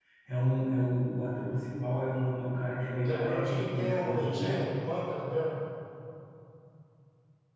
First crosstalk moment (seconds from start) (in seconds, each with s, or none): 3.0 s